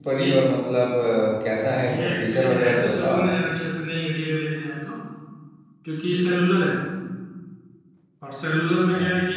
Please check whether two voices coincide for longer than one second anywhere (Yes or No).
Yes